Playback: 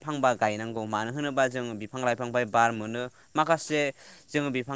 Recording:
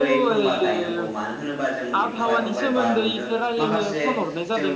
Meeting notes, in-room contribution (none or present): present